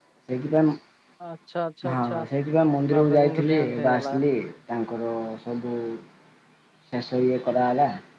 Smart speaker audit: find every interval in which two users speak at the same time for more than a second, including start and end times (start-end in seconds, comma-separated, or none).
3.0-4.2